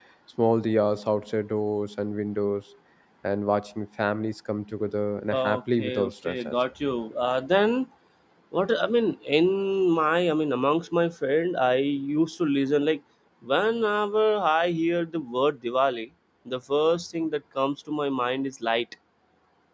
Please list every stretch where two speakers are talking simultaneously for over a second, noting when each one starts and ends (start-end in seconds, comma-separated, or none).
5.3-6.5